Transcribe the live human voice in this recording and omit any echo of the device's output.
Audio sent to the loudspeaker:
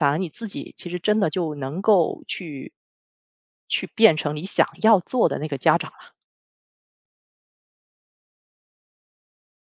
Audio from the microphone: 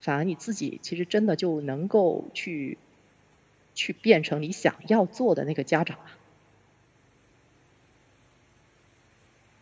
none

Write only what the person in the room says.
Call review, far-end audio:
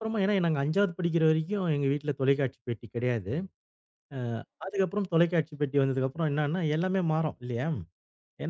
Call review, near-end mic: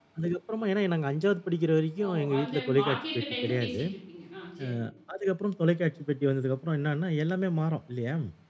ஓ! அந்த பாக்கியிருக்க டயத்துல பேசிட்டு இருப்பீங்க. ஆ சரிங்க.

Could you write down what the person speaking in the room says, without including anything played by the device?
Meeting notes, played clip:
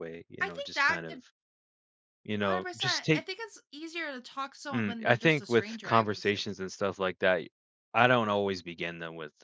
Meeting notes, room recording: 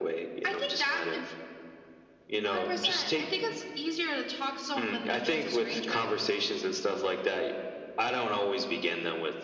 none

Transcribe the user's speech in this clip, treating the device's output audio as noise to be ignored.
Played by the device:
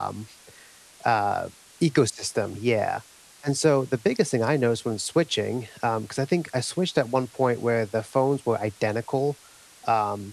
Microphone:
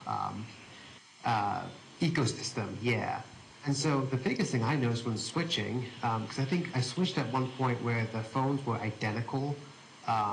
none

